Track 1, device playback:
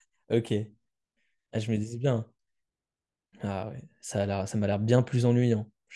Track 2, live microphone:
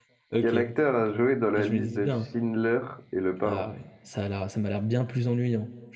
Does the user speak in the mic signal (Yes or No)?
Yes